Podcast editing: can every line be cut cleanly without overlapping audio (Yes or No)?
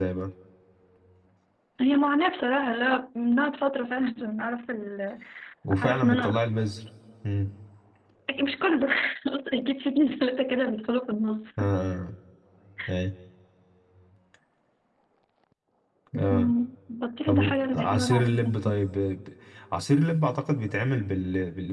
No